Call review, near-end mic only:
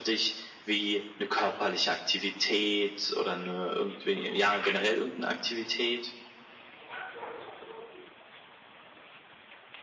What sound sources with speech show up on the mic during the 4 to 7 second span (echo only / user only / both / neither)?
echo only